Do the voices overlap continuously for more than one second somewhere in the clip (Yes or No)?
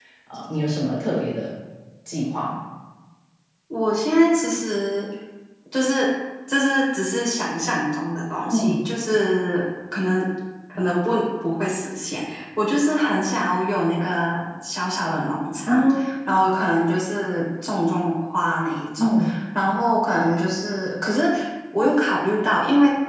No